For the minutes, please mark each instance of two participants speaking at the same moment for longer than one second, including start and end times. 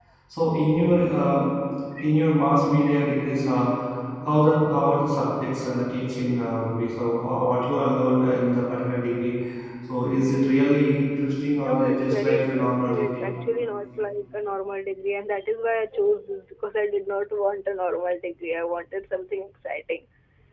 11.6-13.2

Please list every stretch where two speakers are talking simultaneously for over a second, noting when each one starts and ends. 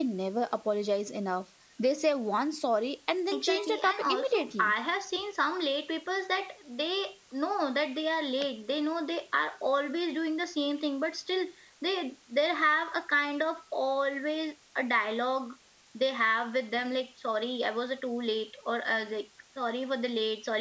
3.3-4.7

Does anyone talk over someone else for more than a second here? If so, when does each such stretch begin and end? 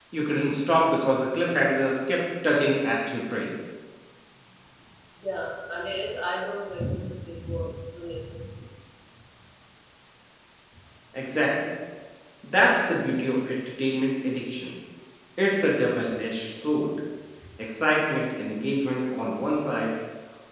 none

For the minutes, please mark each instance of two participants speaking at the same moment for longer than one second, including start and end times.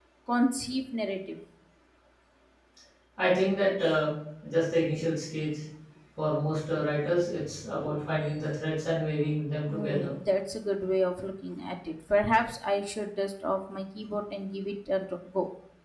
none

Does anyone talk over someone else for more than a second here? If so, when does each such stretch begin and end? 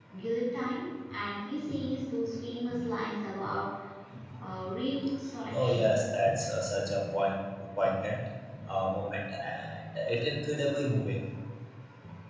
none

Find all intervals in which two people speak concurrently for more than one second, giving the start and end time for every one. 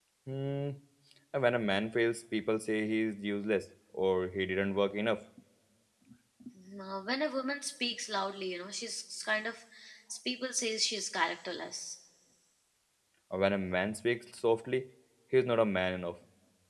none

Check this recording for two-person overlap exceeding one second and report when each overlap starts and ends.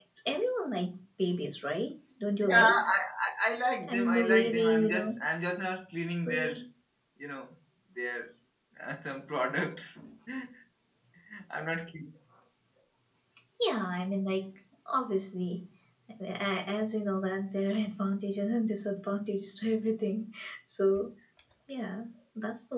3.9-5.1

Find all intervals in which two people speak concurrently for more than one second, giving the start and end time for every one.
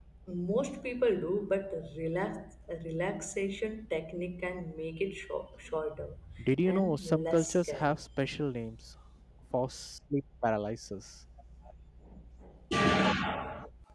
6.7-8.0

